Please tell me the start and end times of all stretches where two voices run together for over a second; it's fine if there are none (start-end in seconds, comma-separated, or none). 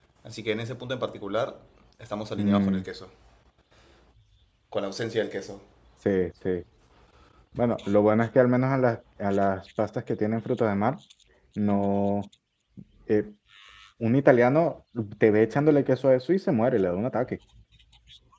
none